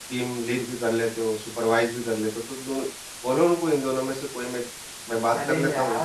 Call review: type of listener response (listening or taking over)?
taking over